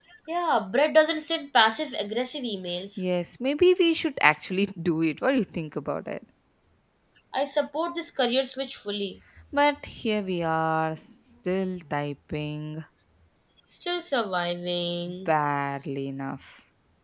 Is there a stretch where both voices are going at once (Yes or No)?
No